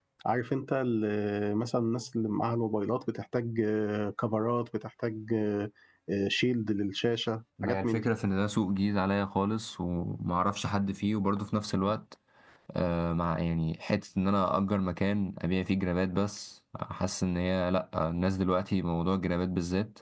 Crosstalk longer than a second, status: none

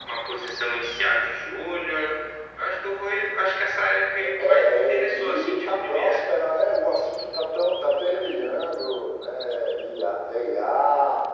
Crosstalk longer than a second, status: present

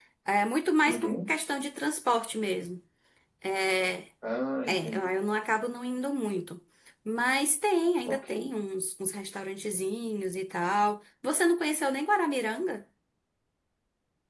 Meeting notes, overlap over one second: none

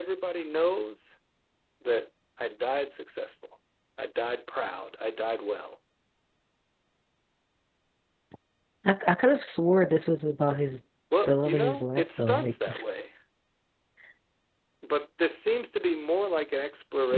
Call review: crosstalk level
present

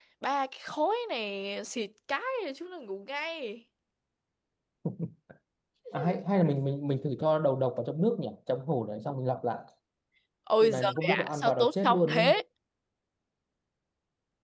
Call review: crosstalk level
present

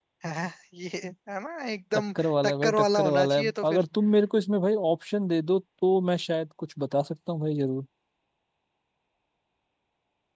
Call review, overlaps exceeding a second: present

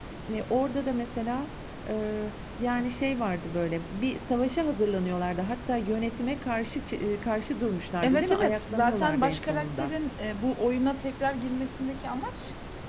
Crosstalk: present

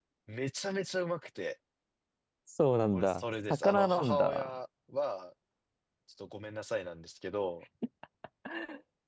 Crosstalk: present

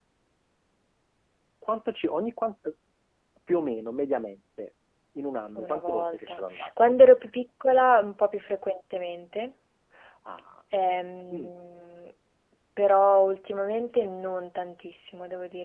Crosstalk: present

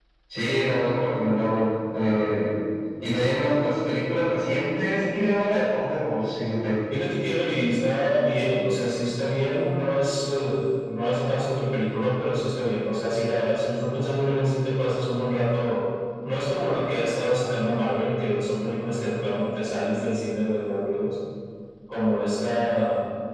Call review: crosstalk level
none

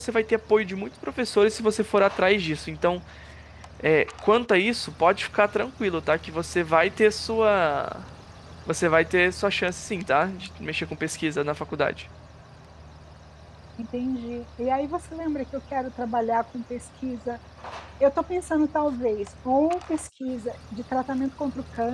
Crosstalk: none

